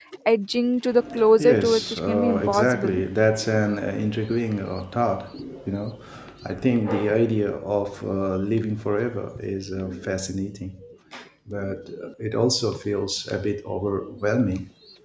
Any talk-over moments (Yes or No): Yes